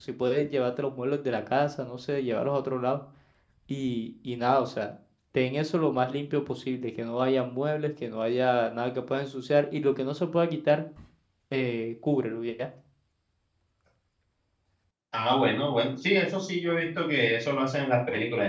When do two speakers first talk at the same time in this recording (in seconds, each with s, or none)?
none